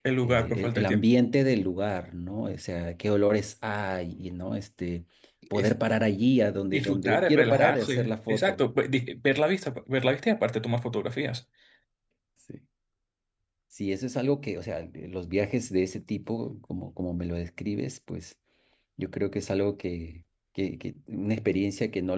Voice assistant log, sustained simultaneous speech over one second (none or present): present